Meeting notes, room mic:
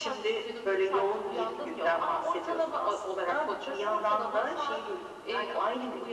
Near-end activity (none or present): none